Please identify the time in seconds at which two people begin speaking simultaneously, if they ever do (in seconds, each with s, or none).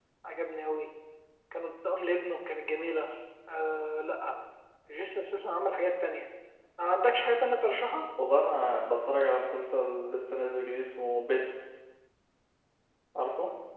none